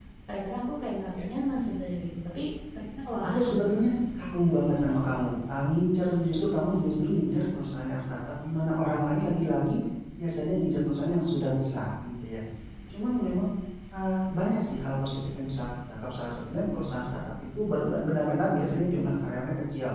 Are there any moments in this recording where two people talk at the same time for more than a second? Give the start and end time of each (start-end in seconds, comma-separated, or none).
none